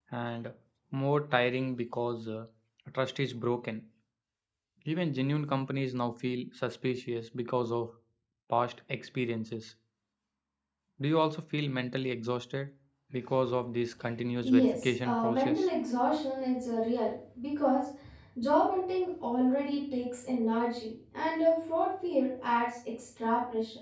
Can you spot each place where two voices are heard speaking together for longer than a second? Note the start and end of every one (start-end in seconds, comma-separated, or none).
14.4-15.7